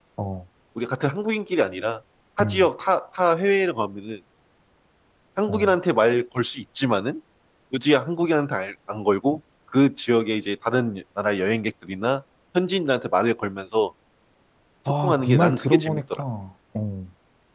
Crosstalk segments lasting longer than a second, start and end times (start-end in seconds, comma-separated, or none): 14.9-16.2